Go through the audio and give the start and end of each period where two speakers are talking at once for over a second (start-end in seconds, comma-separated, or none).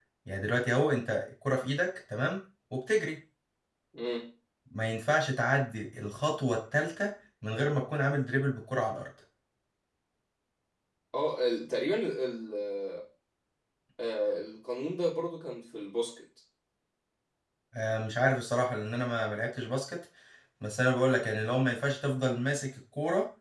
none